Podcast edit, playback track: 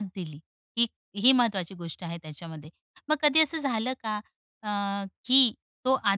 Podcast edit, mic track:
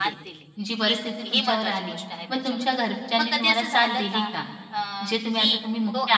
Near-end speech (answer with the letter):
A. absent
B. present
B